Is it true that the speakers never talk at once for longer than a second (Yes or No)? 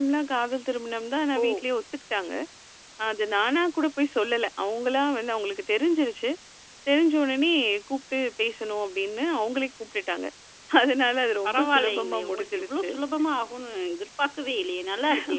No